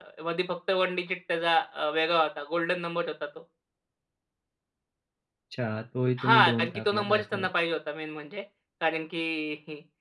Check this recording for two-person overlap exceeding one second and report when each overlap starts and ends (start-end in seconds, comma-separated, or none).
6.2-7.5